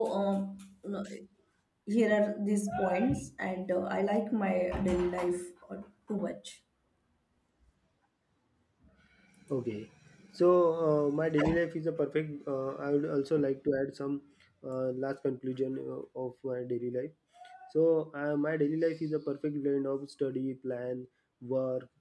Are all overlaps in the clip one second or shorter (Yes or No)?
Yes